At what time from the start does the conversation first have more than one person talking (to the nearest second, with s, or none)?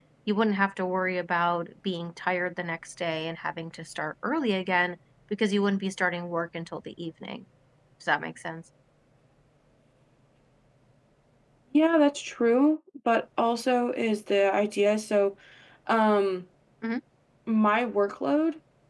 none